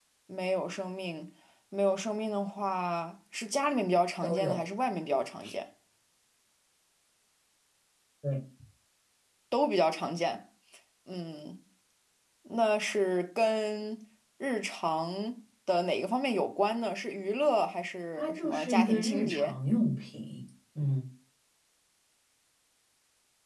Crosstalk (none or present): present